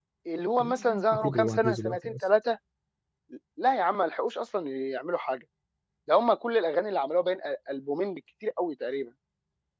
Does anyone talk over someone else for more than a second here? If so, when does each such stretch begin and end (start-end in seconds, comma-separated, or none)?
0.6-2.1